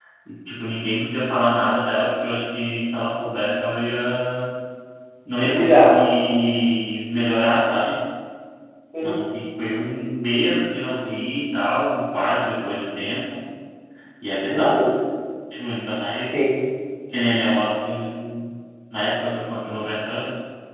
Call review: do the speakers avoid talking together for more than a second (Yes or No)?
Yes